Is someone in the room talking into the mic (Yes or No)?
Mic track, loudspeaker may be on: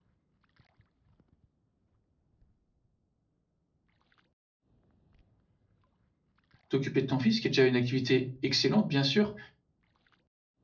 Yes